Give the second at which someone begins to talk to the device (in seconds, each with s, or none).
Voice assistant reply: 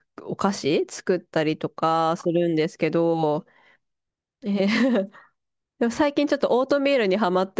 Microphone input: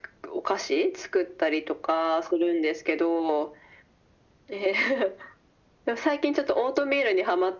none